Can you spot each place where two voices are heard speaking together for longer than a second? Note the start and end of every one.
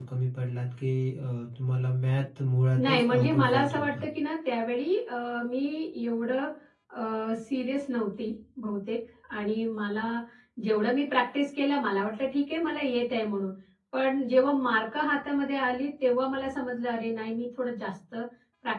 2.8-4.0

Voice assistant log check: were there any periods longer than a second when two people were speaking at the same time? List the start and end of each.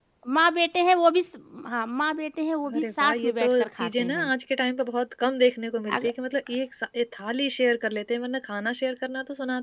2.8-4.3

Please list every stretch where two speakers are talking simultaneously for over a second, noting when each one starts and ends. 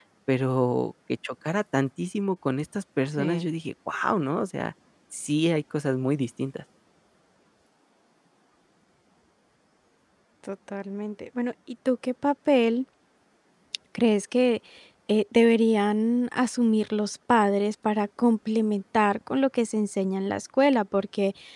none

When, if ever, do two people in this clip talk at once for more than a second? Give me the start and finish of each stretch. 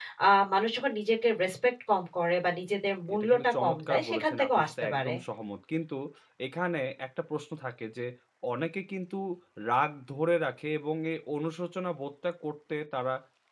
3.1-5.1

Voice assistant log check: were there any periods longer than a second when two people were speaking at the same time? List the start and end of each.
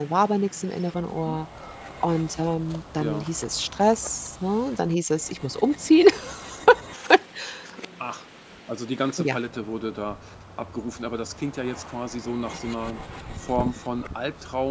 none

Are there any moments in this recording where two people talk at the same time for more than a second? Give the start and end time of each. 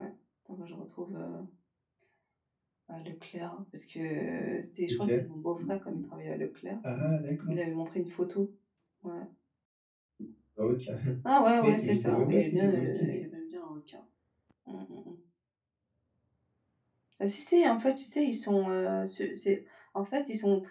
11.6-13.1

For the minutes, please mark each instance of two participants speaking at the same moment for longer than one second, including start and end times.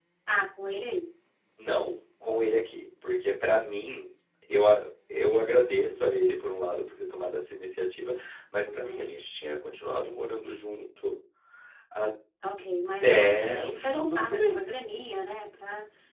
13.0-14.6

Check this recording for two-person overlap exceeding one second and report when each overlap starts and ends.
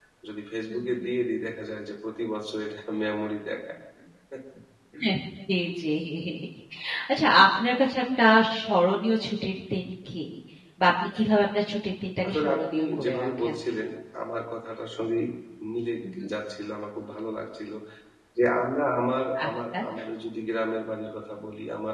12.2-13.6

